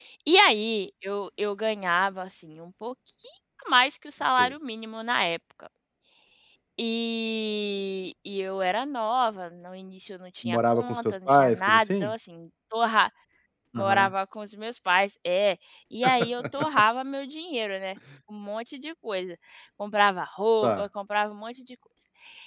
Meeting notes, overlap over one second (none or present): present